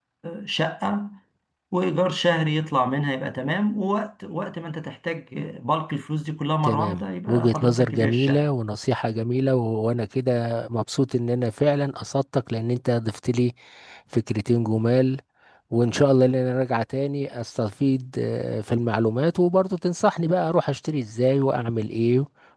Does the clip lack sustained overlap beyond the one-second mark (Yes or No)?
No